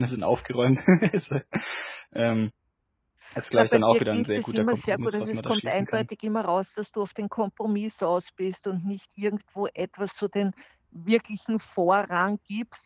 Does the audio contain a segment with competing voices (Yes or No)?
Yes